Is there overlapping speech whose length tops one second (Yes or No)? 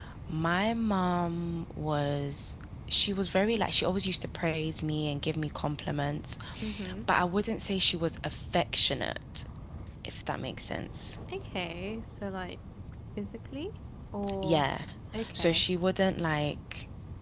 No